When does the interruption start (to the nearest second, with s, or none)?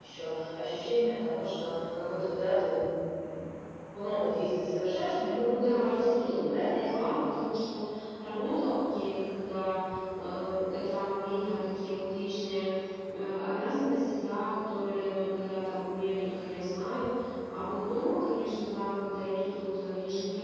5 s